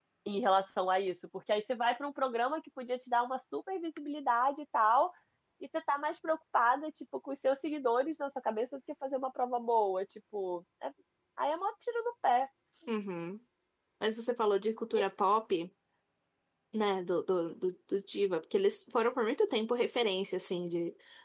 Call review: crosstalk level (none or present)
none